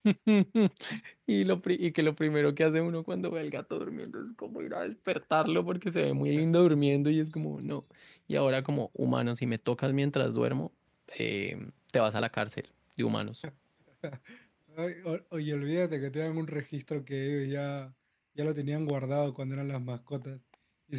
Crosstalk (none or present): none